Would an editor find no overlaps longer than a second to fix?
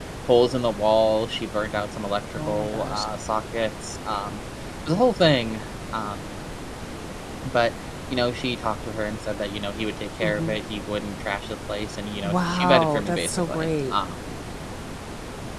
No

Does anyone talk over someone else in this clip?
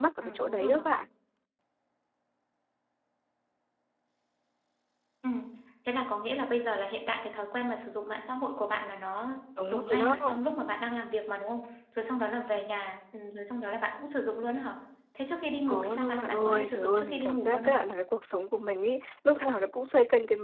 Yes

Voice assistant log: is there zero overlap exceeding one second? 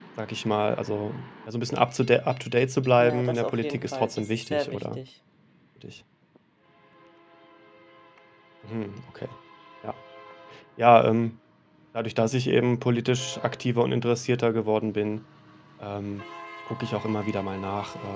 No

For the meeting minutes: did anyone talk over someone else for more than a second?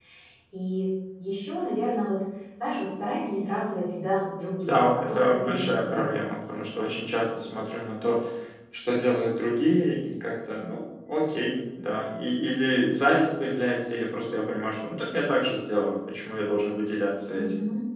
Yes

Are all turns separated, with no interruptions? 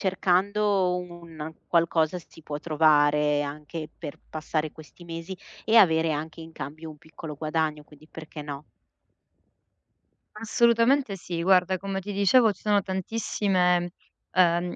Yes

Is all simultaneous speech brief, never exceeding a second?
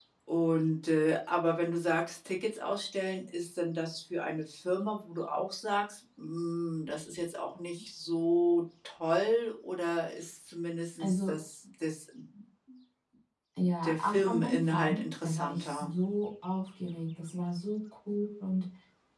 No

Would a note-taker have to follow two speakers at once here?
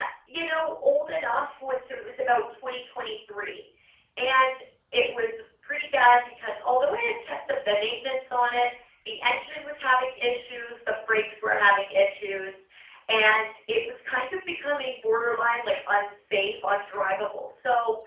No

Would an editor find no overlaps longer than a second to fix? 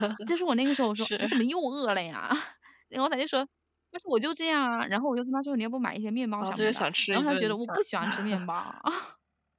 No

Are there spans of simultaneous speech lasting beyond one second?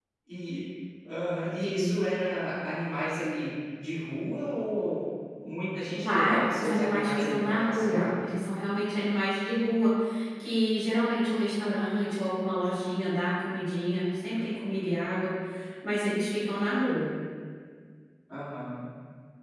Yes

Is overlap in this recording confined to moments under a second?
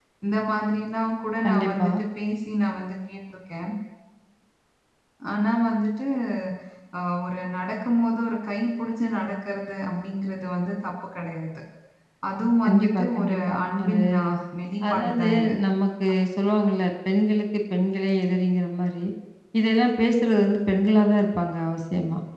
No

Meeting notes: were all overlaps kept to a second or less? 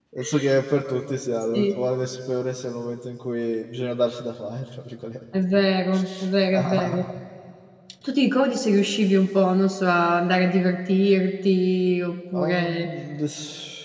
Yes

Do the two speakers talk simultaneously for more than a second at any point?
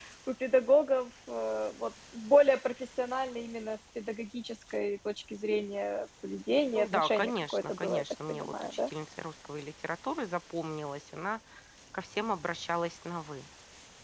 Yes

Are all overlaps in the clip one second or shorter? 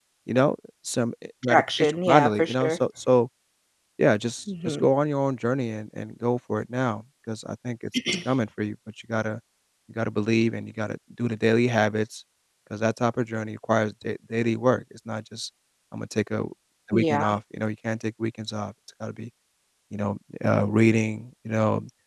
No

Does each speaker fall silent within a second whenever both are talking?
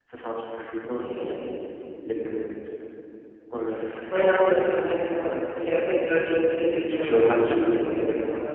No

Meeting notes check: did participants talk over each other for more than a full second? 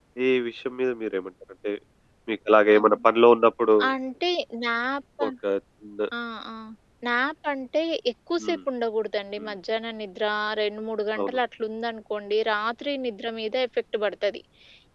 No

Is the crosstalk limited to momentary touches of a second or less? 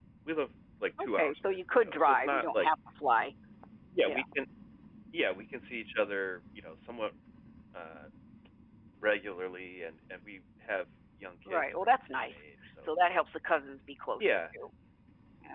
No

